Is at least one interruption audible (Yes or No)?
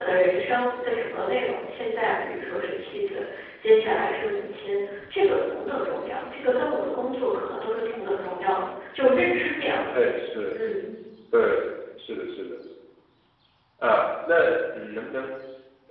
No